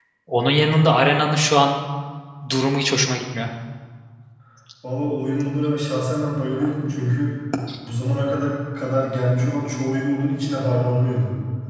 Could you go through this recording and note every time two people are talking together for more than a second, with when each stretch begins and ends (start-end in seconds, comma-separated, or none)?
none